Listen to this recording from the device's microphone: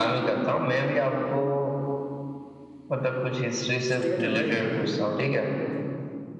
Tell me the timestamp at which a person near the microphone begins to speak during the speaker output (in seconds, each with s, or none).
4.0 s